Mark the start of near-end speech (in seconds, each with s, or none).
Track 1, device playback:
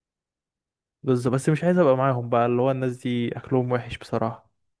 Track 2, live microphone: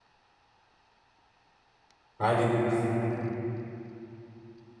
2.2 s